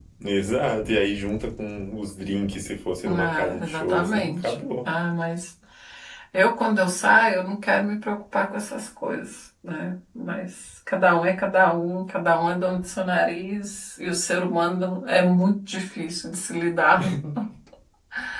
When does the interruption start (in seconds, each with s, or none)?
3.0 s